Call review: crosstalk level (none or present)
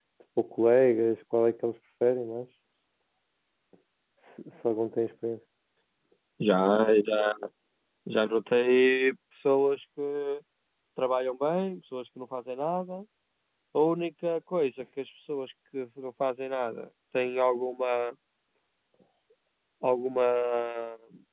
none